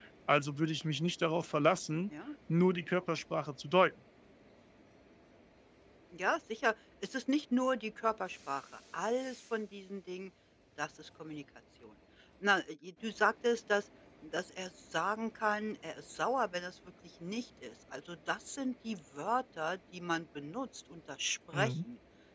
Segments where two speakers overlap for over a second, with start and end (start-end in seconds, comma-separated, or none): none